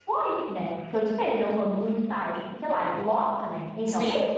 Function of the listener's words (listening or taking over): listening